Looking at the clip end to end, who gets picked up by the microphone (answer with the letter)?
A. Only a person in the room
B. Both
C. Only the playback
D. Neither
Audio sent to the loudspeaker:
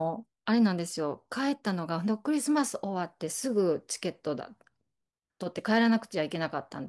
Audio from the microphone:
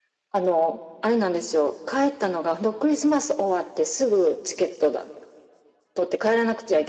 C